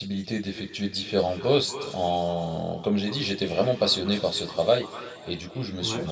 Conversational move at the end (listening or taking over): listening